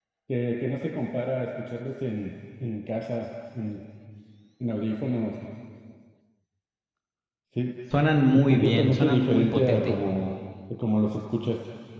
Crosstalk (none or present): present